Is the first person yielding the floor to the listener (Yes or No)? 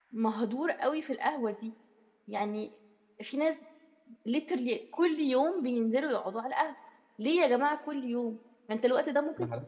No